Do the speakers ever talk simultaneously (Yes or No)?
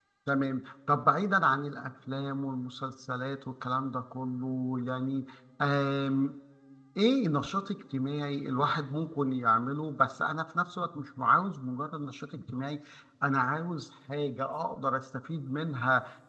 No